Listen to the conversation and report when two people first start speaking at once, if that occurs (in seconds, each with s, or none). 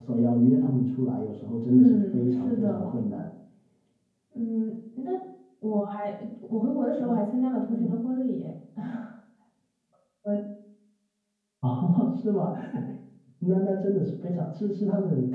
1.7 s